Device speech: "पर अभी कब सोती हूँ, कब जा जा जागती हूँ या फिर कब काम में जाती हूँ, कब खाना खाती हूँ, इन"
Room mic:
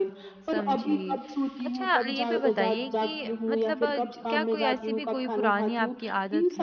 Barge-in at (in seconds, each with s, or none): 0.5 s